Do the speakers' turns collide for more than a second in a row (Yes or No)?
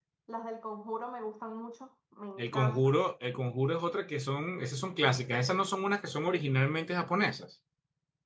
No